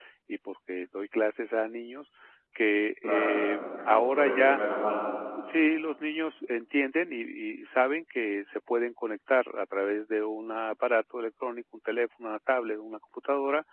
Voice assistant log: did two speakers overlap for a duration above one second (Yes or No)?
Yes